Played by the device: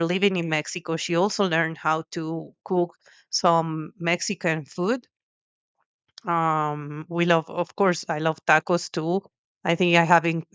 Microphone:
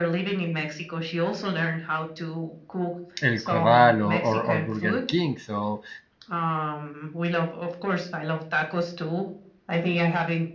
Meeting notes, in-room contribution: present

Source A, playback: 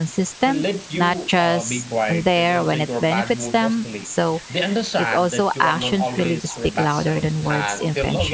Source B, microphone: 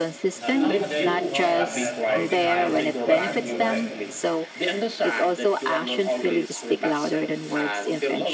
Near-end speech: present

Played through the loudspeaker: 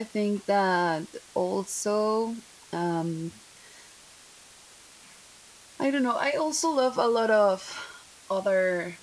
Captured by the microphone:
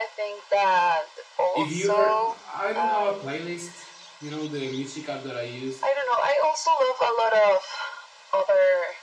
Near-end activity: present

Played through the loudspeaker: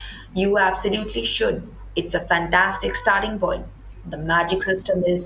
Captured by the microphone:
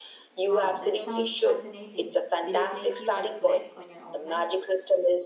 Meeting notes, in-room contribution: present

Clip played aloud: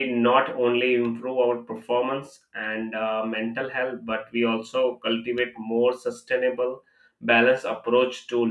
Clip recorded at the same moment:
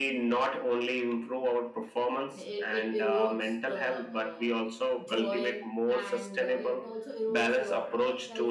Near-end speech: present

